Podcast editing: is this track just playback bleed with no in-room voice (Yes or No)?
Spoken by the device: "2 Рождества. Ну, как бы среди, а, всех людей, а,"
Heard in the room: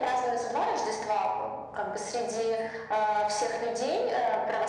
Yes